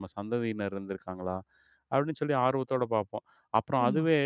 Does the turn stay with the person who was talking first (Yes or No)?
Yes